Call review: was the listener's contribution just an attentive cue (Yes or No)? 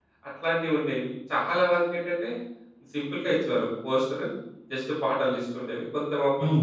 Yes